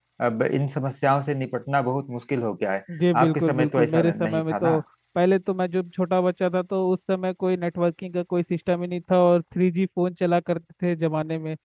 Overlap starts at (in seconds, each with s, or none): 3.2 s